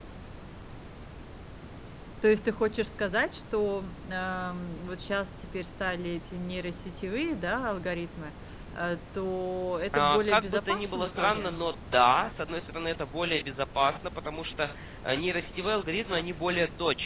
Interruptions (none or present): present